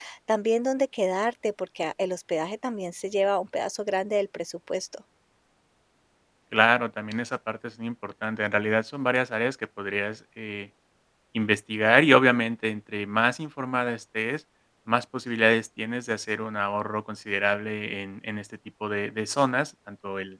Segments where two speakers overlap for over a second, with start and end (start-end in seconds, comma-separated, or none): none